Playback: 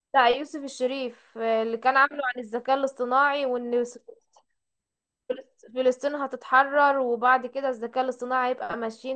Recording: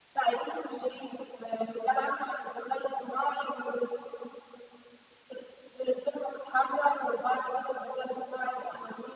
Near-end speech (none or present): none